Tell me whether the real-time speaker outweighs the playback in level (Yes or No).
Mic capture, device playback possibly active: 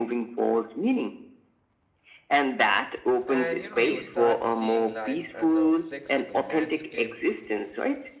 No